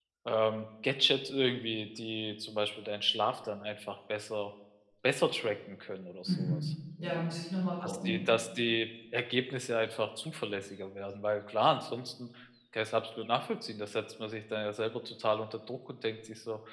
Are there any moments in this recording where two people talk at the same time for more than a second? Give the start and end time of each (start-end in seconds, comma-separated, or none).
none